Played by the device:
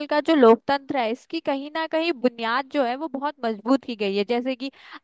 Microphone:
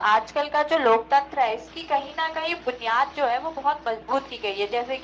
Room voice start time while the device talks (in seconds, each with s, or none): none